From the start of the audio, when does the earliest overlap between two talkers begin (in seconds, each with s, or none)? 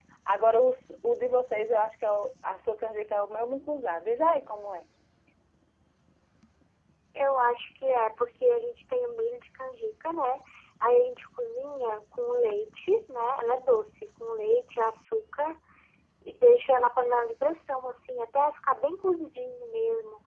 none